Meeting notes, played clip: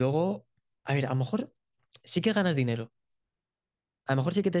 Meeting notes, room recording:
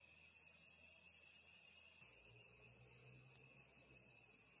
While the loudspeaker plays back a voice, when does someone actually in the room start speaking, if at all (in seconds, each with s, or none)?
none